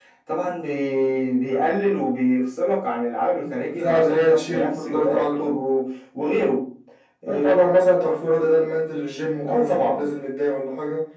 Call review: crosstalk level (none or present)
present